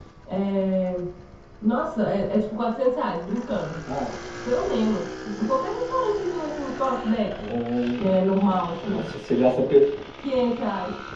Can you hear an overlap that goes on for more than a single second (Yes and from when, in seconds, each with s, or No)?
No